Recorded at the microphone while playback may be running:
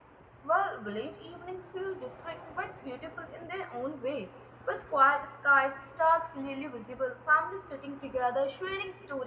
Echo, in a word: none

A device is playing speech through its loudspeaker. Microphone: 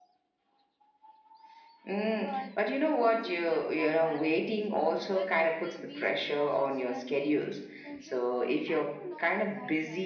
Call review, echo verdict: present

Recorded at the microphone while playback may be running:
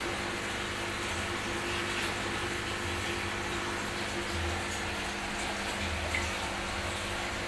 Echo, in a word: none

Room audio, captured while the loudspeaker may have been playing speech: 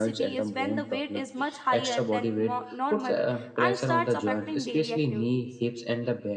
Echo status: present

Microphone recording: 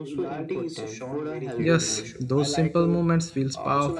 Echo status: present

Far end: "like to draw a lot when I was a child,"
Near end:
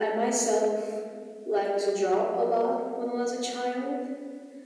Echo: present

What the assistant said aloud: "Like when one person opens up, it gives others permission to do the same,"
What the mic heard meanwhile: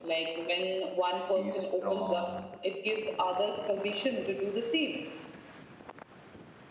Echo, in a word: present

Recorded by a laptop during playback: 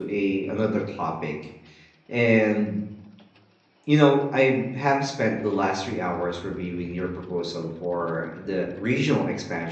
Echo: none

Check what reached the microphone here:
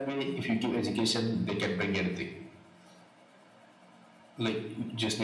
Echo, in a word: present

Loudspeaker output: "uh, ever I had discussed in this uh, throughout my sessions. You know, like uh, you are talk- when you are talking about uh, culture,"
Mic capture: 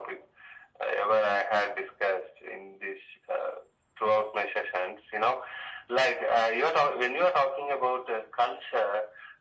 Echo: present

